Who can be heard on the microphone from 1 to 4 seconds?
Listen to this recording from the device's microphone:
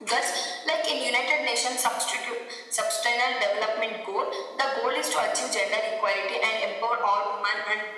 echo only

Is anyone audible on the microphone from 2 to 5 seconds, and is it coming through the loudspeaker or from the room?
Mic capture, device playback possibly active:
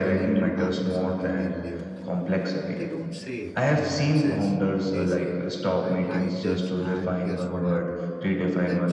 both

